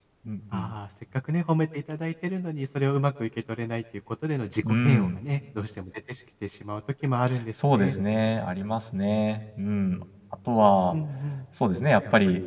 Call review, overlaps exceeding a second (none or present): none